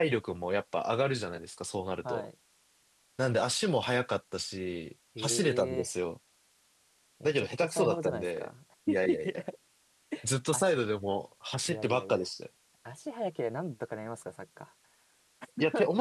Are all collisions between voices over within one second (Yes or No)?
No